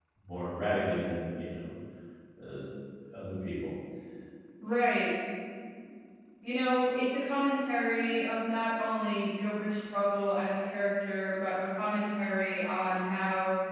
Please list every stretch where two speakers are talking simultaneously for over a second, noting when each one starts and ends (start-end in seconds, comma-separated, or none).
none